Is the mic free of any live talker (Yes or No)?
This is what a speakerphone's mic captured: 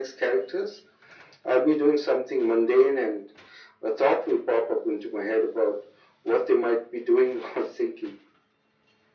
Yes